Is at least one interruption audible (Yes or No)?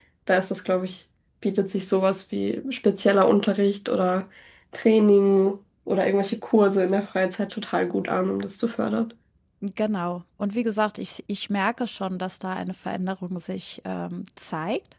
No